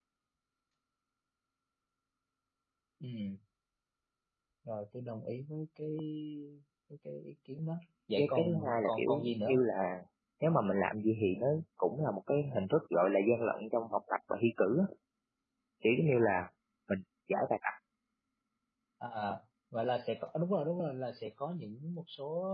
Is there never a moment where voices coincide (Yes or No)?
No